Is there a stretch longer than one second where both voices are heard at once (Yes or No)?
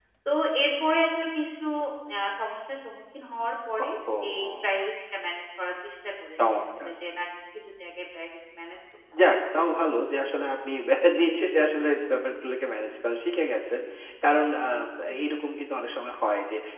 No